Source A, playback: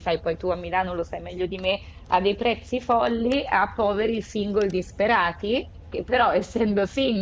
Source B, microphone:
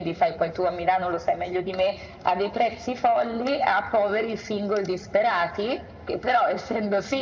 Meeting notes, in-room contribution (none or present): none